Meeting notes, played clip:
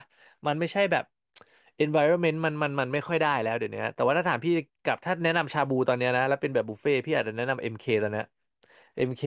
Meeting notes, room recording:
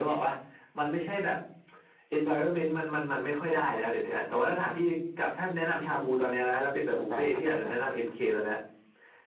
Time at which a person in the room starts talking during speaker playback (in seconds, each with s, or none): 6.9 s